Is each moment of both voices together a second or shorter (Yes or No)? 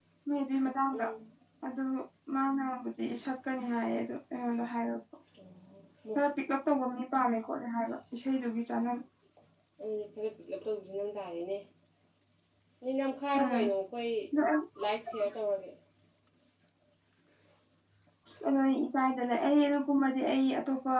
Yes